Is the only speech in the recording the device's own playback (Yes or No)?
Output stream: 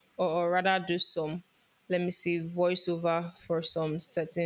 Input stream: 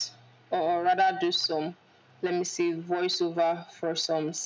Yes